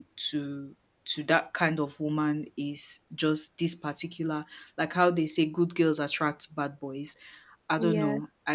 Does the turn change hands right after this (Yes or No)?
No